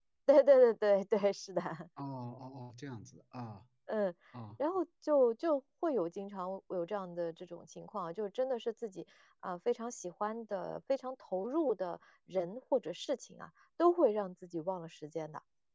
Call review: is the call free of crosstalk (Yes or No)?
Yes